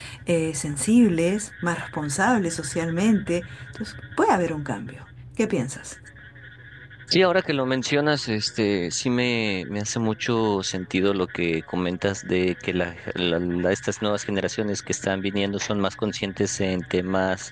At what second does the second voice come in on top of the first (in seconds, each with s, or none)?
none